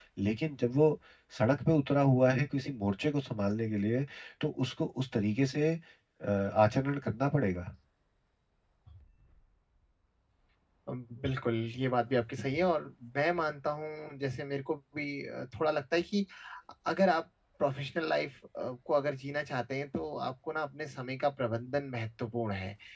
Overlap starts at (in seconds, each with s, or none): none